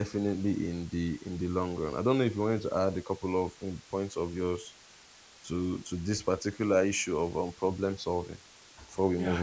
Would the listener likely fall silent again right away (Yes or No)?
No